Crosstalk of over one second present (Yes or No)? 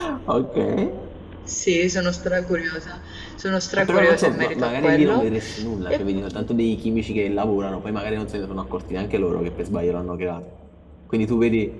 Yes